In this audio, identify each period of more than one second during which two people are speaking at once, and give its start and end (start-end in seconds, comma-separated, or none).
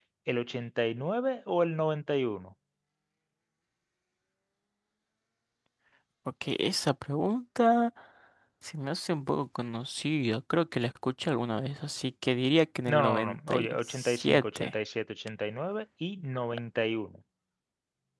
12.9-14.7